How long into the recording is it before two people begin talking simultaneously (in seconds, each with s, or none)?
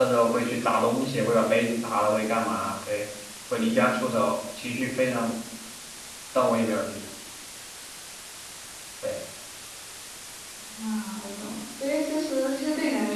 none